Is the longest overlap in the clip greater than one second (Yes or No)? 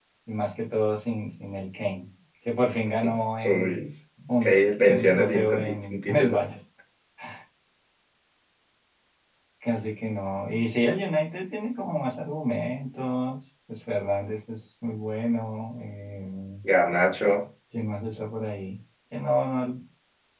Yes